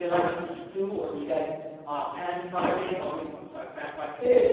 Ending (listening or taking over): taking over